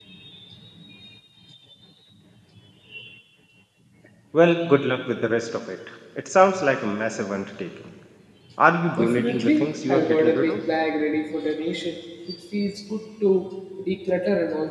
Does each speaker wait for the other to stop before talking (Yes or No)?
No